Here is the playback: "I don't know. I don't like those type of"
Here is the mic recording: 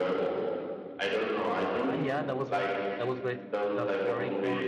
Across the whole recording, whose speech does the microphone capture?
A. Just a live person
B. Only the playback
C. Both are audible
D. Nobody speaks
C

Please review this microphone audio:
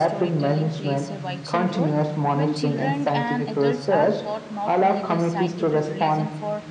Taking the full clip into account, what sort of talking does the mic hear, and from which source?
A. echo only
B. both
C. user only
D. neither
B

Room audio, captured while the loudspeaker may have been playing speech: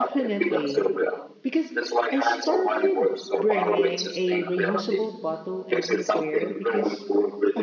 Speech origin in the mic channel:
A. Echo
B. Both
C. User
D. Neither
B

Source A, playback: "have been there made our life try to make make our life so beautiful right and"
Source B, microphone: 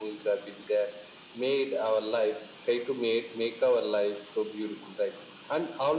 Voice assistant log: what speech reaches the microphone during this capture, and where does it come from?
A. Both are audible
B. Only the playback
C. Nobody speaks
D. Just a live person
B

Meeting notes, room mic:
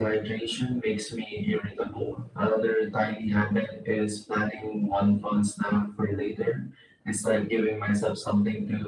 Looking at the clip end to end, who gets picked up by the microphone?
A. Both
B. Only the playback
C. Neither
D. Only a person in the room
B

